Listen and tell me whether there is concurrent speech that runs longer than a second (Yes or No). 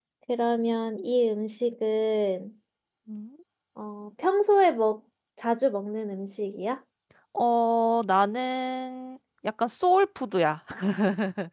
No